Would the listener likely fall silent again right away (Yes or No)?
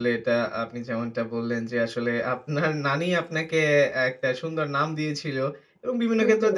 Yes